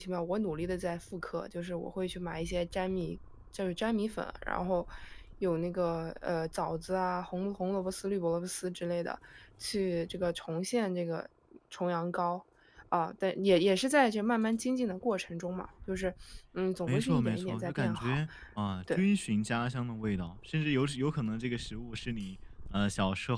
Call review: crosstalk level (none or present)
present